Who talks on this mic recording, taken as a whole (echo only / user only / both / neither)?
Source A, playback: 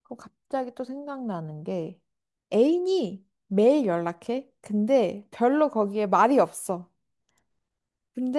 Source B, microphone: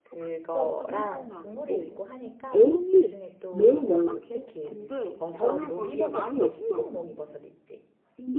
both